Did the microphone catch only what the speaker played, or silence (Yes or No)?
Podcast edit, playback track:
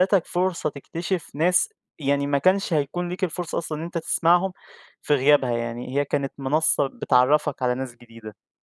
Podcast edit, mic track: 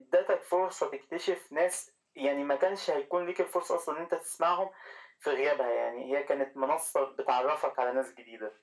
Yes